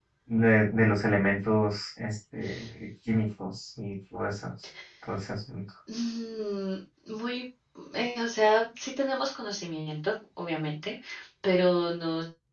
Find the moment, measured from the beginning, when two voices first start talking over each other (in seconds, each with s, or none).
none